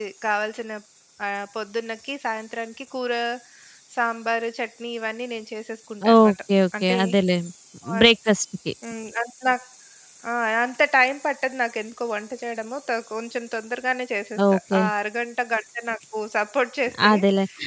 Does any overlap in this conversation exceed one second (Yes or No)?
No